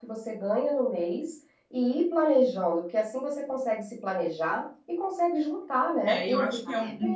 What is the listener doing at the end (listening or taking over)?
taking over